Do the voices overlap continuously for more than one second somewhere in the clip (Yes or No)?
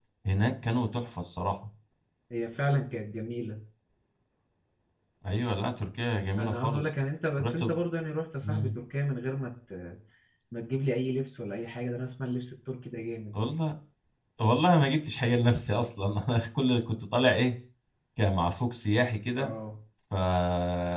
No